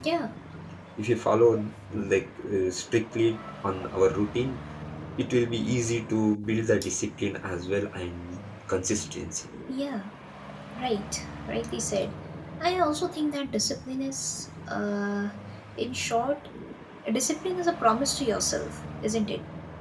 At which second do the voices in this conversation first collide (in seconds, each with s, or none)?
none